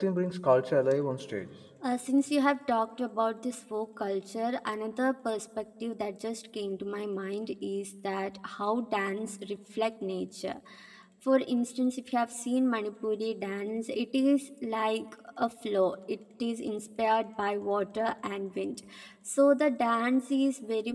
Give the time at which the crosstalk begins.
none

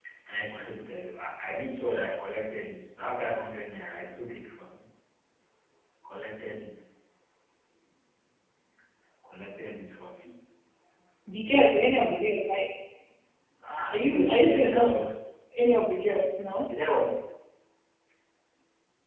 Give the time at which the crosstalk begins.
13.8 s

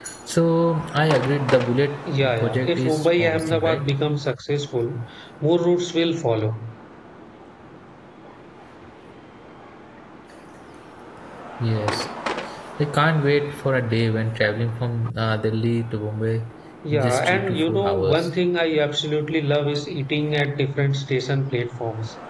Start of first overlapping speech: 2.2 s

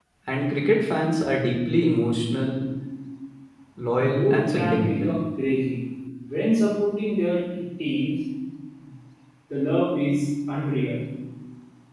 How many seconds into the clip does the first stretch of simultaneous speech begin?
4.0 s

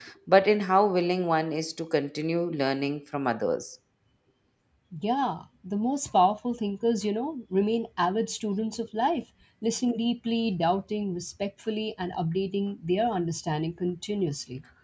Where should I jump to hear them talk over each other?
none

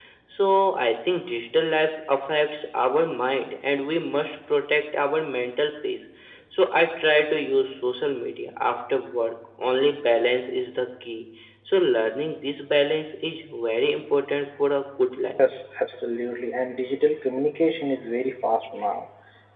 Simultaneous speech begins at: none

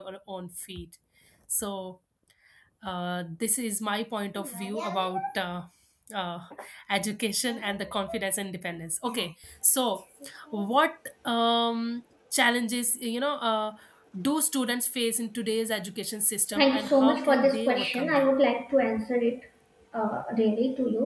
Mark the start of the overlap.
16.5 s

